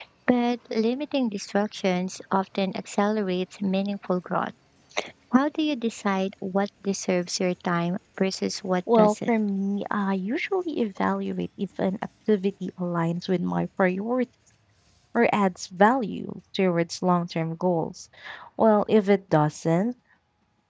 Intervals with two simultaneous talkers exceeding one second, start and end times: none

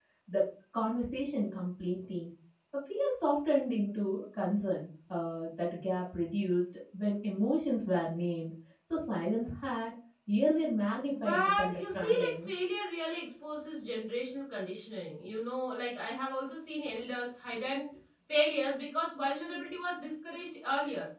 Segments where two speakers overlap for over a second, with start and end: 11.1-12.5

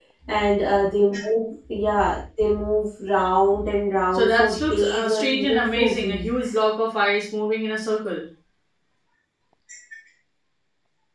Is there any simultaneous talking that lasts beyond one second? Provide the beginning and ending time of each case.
4.1-6.5

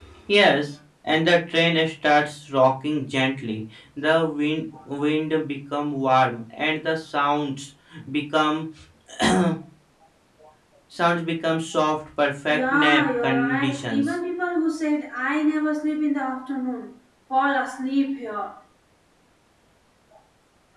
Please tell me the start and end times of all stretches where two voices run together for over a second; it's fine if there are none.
12.5-14.1

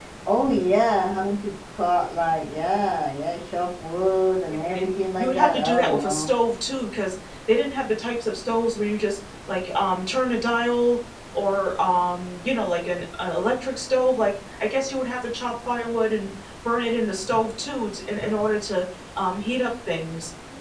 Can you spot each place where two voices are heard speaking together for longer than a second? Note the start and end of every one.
4.5-6.3

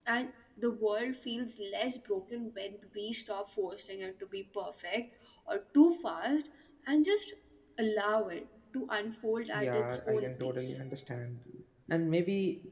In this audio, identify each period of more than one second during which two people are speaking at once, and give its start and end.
9.5-10.8

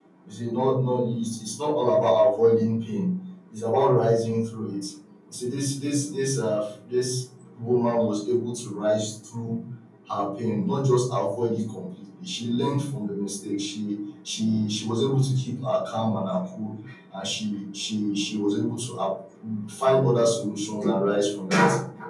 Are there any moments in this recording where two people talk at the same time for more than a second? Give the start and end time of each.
none

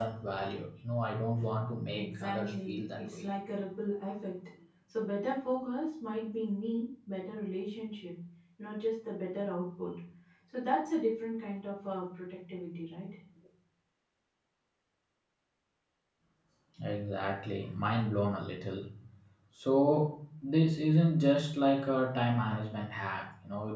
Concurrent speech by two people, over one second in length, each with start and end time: 1.9-3.3

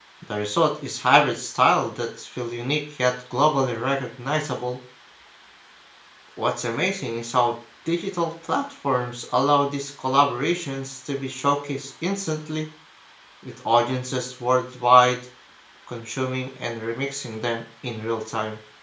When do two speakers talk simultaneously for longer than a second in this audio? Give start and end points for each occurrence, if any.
none

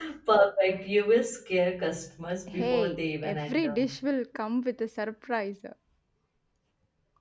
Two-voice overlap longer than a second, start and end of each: 2.5-3.8

